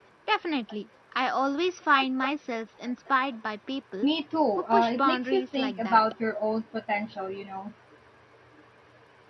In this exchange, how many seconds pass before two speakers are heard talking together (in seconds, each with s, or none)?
4.7 s